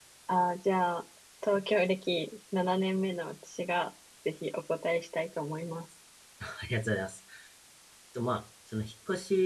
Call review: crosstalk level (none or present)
none